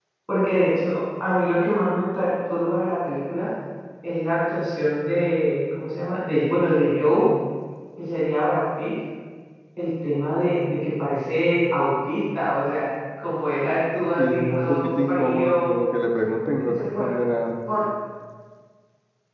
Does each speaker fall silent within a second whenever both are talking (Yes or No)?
No